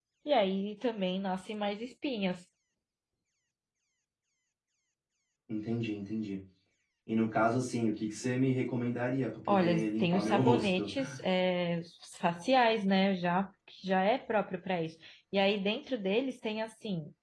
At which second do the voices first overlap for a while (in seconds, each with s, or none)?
9.5 s